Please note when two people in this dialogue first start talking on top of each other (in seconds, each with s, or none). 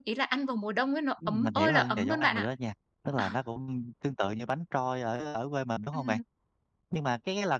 1.3 s